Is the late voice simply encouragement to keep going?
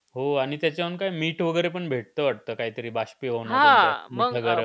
No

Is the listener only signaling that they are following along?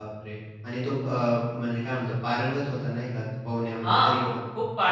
No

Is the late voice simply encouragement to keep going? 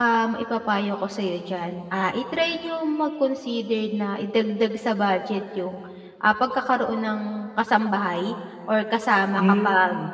Yes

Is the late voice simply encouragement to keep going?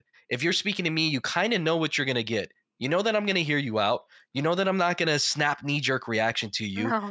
Yes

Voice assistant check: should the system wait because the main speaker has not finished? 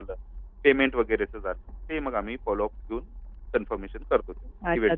No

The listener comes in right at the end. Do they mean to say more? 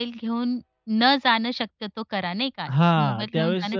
Yes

